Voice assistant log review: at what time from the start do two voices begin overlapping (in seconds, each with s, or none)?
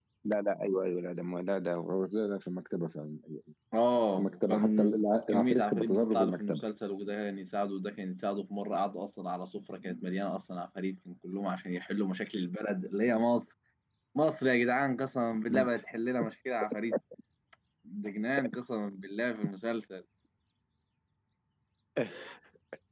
4.2 s